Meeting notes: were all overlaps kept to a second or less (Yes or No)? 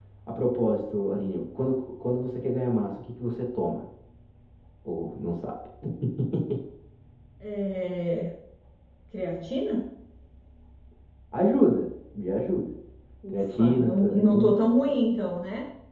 No